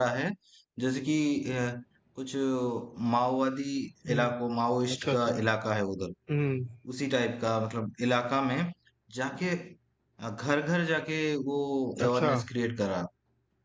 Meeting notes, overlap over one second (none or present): none